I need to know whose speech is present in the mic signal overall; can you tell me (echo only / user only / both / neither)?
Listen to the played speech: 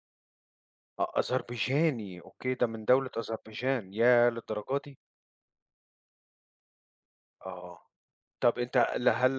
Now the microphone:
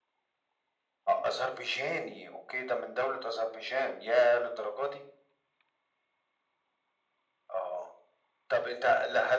echo only